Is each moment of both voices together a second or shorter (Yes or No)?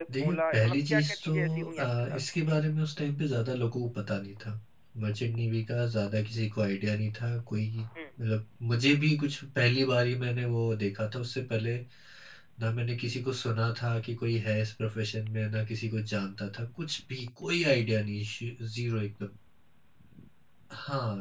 No